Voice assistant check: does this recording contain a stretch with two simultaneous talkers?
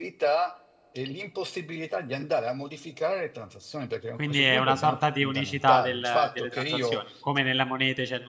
Yes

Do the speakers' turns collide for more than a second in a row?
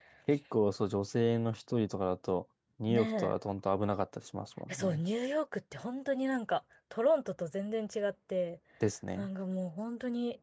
No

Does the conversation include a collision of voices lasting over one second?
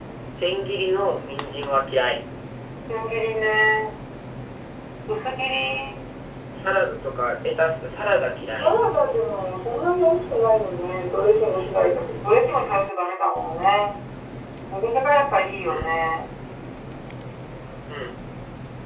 No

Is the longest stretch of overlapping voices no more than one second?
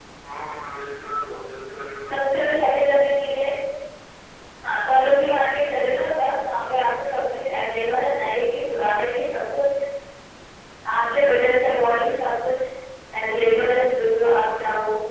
Yes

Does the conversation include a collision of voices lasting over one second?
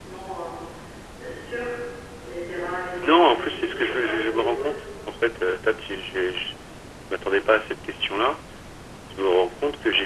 Yes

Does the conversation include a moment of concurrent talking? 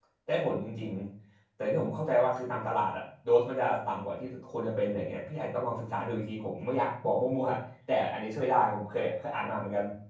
No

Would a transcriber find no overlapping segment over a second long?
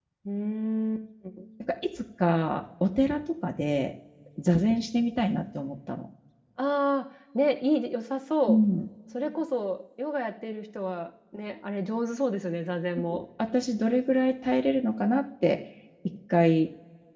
Yes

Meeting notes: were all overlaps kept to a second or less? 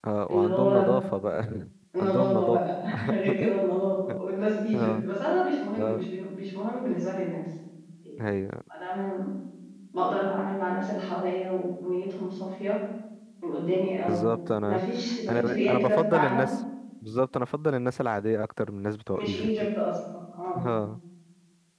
No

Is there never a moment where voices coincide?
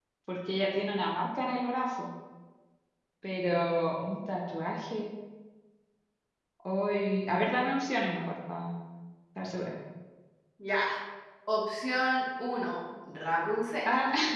Yes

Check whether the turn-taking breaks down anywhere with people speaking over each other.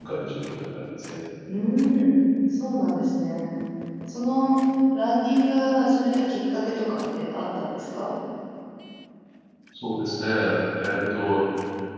No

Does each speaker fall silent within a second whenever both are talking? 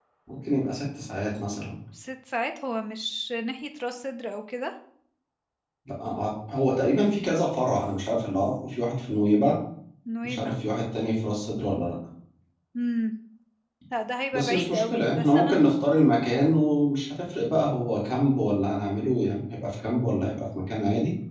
No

